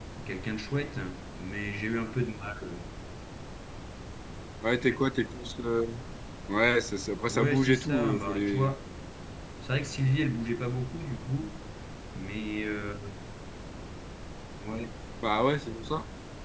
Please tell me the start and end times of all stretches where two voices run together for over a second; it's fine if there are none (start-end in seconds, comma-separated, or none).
7.3-8.7